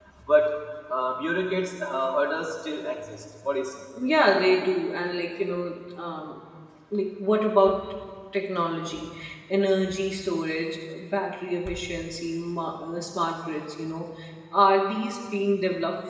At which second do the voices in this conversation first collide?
none

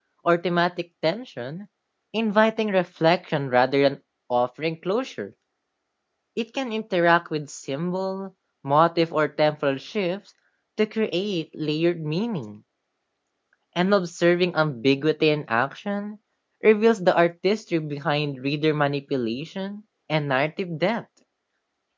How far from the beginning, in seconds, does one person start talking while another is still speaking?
none

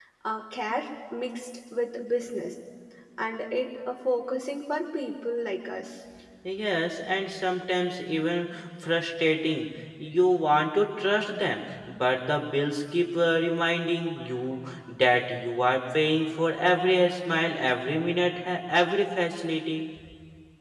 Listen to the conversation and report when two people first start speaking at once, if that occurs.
none

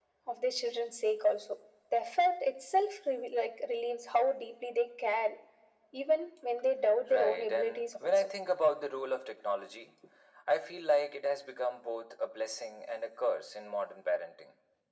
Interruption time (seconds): 7.1 s

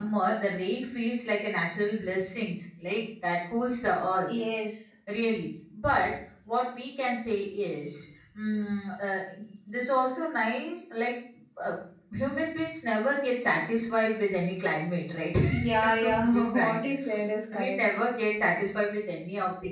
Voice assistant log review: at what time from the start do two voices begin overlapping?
15.5 s

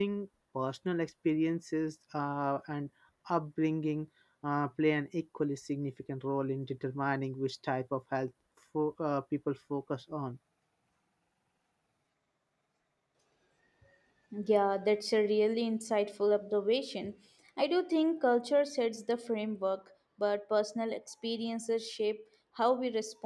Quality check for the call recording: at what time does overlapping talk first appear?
none

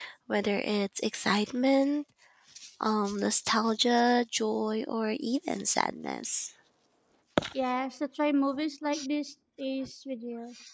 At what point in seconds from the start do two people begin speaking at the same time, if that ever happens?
none

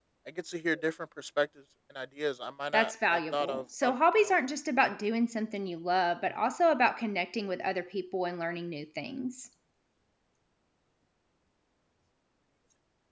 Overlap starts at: 2.7 s

